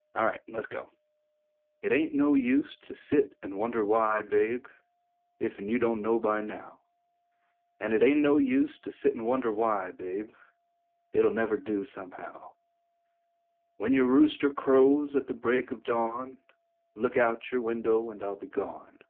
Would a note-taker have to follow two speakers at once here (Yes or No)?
No